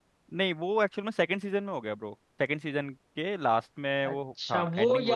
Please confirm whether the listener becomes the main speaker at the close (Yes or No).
Yes